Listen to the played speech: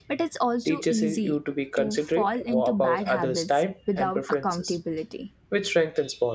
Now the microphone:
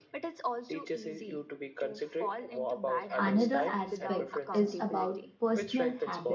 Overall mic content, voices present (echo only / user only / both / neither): both